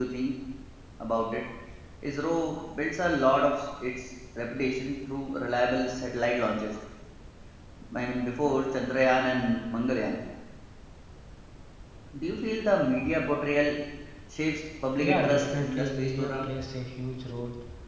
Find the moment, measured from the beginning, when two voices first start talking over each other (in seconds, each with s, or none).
15.0 s